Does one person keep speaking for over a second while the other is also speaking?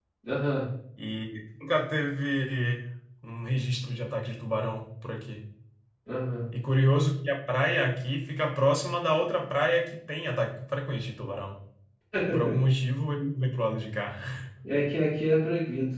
No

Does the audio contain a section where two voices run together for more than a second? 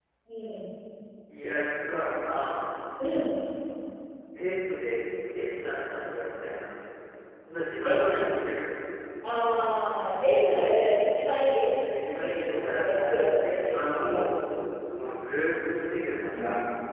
Yes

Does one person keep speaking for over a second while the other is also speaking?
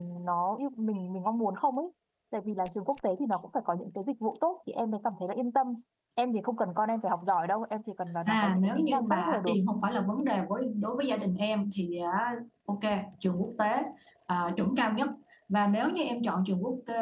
Yes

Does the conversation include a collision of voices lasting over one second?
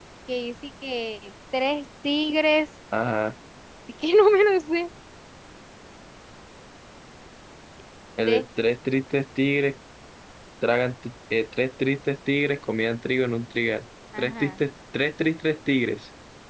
No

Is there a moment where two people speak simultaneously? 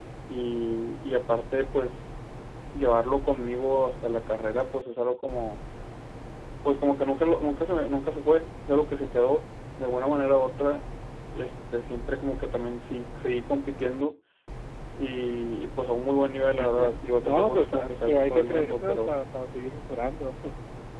Yes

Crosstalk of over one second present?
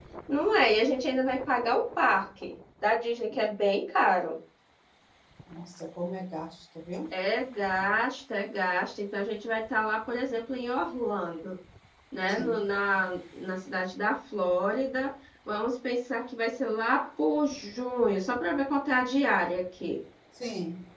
No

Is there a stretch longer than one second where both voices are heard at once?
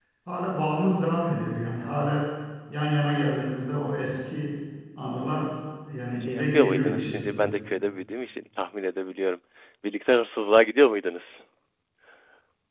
Yes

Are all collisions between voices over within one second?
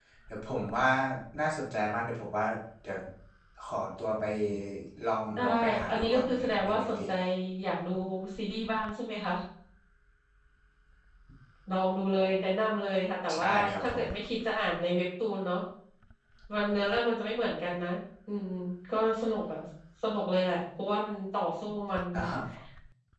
No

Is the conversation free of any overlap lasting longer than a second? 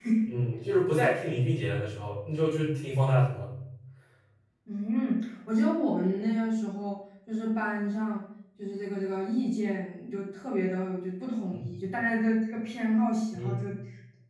Yes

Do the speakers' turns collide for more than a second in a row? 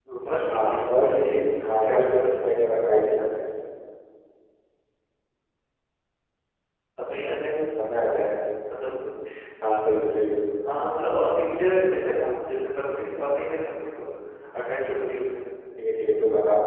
Yes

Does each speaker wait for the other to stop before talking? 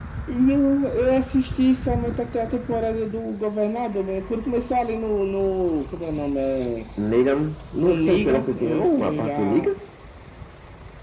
No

